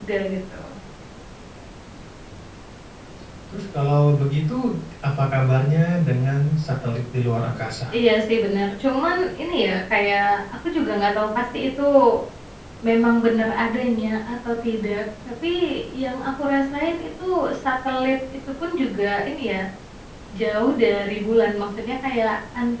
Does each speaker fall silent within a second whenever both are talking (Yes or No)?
Yes